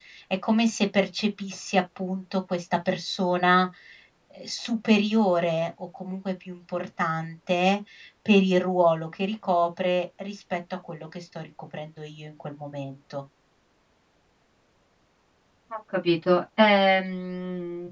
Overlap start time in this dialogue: none

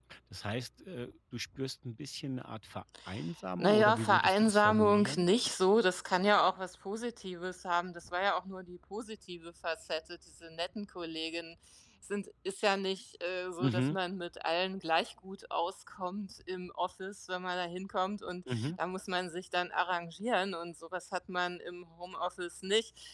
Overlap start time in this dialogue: 4 s

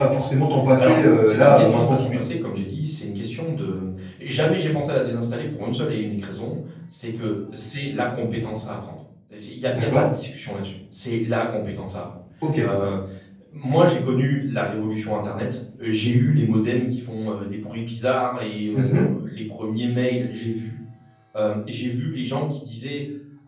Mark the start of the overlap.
1 s

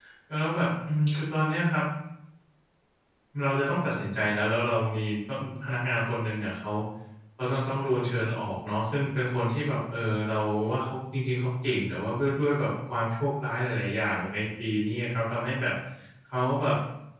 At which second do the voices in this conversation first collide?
none

